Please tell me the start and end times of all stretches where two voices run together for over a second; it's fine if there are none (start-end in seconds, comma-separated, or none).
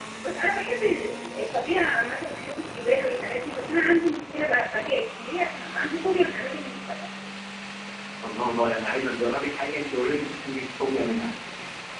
none